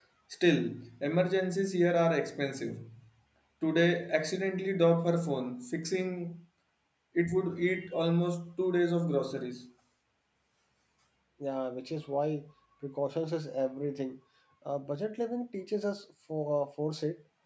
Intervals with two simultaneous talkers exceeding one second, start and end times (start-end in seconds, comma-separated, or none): none